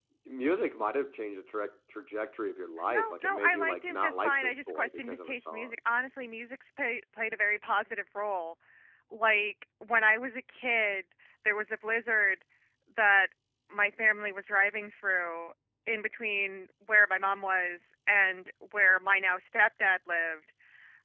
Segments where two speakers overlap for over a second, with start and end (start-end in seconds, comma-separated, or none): 2.9-5.7